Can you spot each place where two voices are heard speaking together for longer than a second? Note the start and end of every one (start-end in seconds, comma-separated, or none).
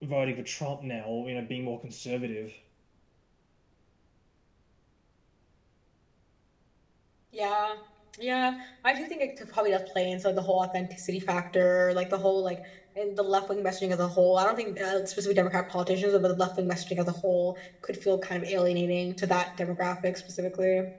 none